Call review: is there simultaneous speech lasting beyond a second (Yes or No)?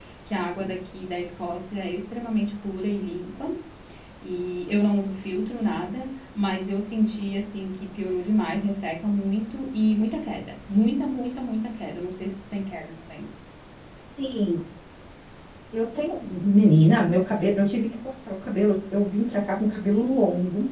No